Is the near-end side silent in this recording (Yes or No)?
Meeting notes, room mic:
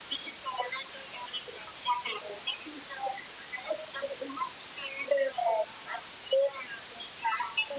Yes